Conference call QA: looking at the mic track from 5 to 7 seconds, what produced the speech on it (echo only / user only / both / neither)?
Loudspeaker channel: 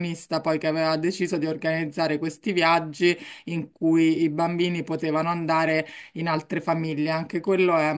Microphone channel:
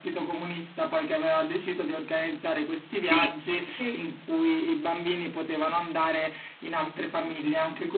echo only